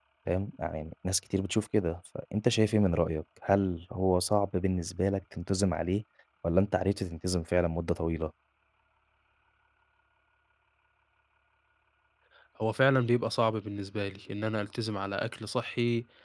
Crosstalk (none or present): none